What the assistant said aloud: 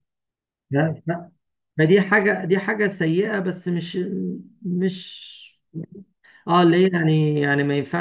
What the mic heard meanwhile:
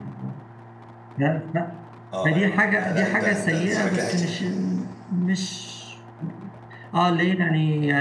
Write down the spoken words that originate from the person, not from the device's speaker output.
اه ايوه لا لا انت انت انت شكلك كده عشت

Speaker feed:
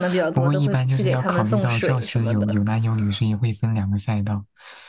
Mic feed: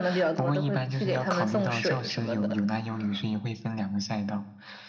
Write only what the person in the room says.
none

